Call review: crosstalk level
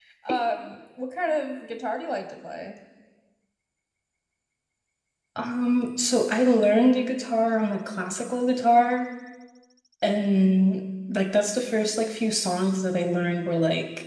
none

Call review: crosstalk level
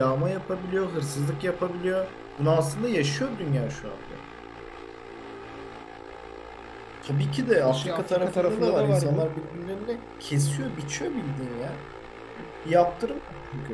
present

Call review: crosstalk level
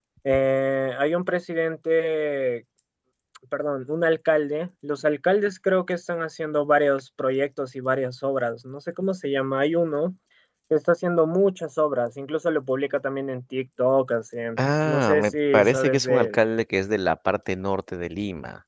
present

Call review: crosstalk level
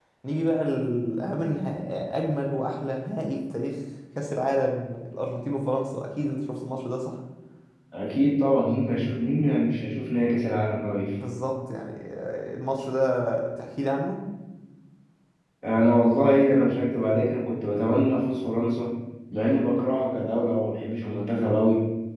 none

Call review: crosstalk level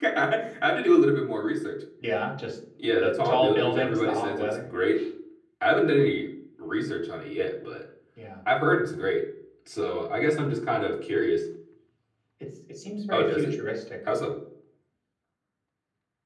present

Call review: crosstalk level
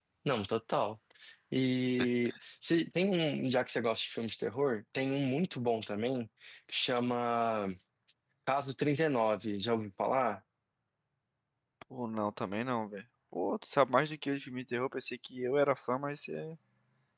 none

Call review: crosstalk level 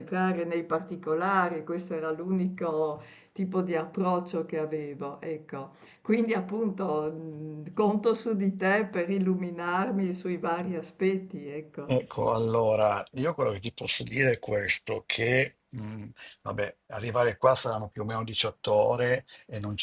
none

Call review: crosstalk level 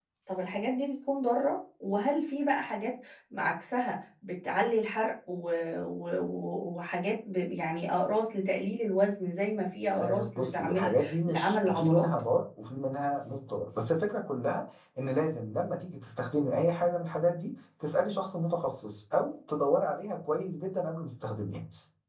present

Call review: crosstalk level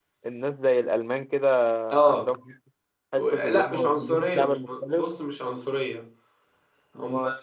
present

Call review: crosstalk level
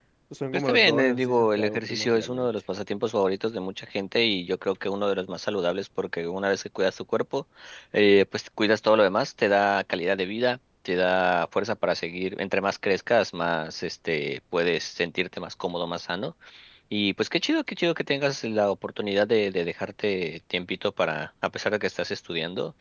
present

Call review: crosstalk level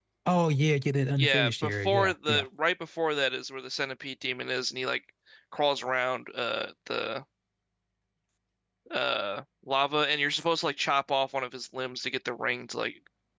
present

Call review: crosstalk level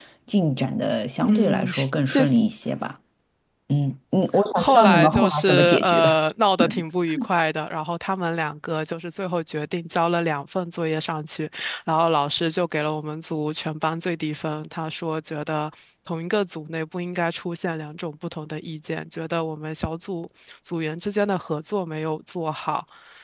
present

